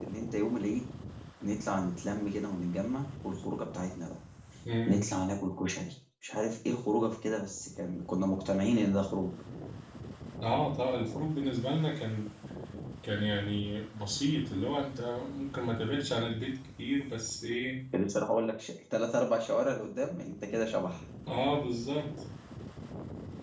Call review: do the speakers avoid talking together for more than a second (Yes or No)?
Yes